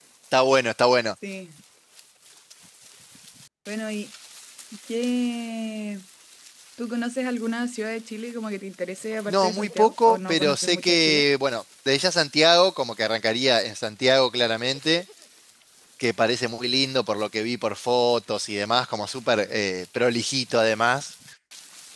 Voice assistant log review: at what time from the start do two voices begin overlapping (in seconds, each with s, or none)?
9.3 s